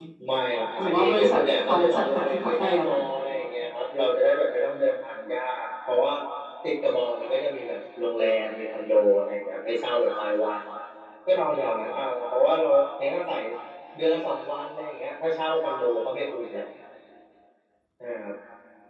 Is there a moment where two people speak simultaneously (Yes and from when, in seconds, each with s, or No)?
Yes, from 0.8 s